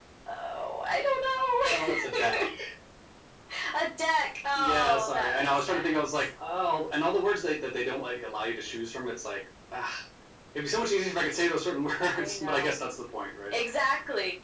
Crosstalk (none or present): present